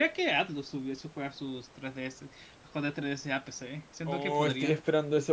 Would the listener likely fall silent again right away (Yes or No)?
No